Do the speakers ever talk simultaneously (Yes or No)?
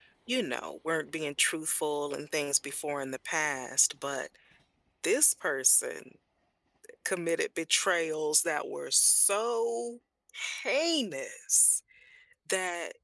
No